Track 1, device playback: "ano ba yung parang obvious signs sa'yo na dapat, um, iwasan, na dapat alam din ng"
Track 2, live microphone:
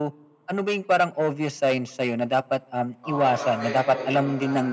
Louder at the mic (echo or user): echo